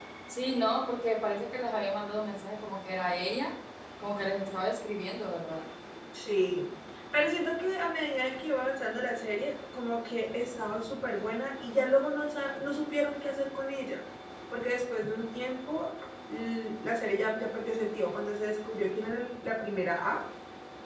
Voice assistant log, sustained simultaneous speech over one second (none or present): none